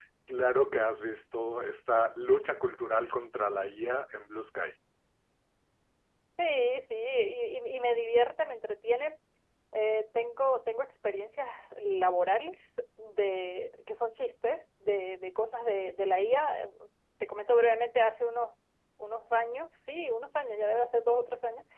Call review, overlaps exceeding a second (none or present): none